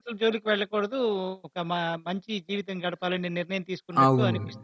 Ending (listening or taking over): taking over